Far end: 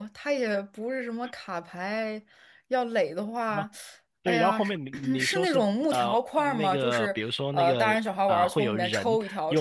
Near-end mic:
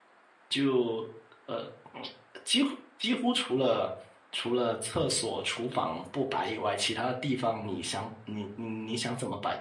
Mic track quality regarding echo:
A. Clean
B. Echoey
A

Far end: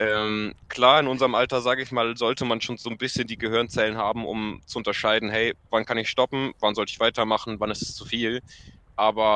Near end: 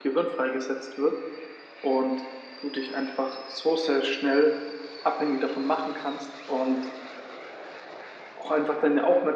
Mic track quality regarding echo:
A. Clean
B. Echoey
A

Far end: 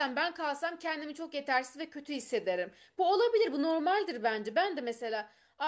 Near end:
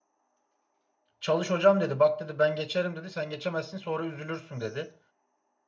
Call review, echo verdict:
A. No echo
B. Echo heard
A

